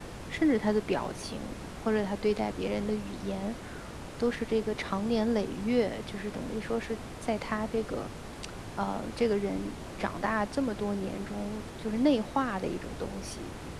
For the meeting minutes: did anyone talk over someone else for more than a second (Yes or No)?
No